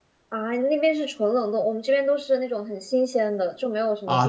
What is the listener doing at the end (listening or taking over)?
taking over